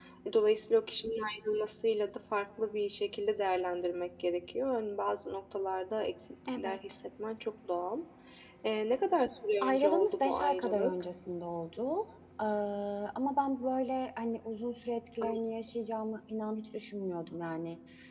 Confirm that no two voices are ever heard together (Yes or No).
No